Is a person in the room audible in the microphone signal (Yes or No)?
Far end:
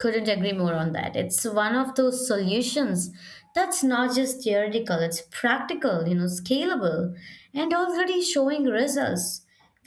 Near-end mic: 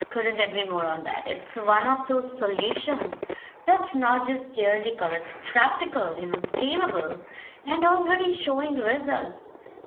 No